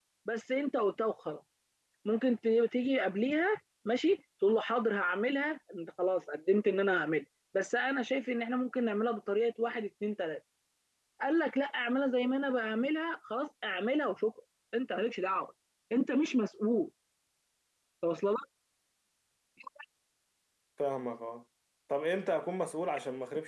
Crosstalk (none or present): none